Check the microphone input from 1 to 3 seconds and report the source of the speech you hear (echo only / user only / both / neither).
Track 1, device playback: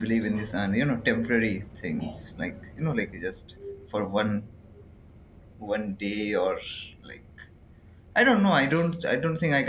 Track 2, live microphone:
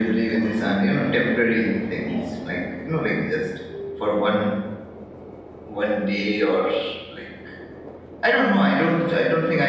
echo only